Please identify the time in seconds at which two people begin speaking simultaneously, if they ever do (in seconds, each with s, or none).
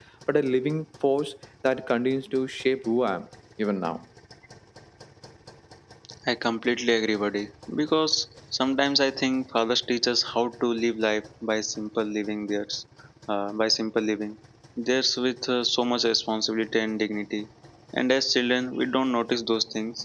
none